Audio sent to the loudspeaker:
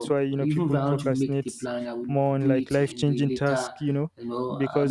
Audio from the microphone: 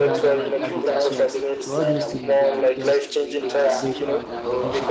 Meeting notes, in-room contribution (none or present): present